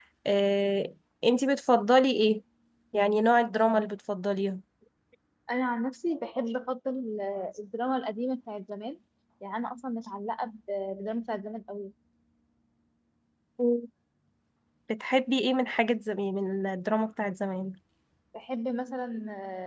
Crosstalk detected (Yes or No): No